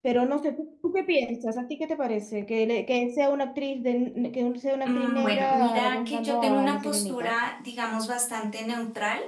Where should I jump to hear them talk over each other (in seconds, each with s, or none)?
4.8 s